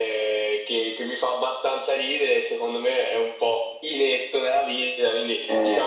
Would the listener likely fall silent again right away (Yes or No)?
Yes